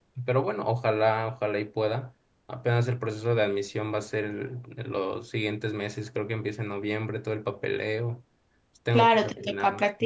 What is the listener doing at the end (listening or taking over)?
taking over